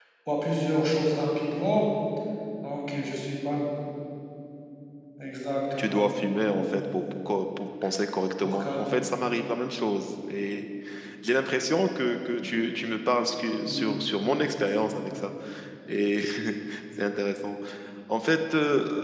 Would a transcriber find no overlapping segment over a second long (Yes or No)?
Yes